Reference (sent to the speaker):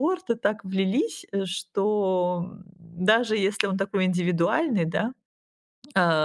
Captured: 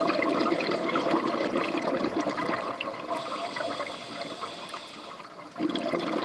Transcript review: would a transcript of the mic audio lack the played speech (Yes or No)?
Yes